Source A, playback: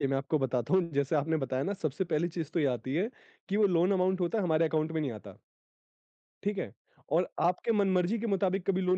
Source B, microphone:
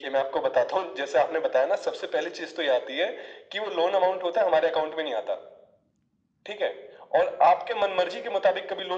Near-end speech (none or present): none